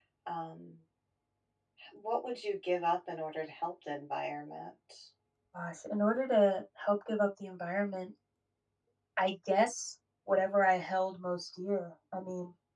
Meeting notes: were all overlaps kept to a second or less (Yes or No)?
Yes